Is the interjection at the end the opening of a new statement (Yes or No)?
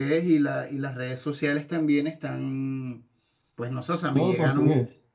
No